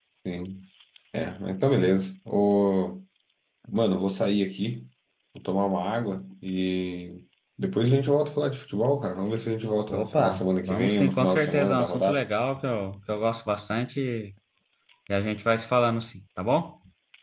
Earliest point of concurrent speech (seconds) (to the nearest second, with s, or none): 10 s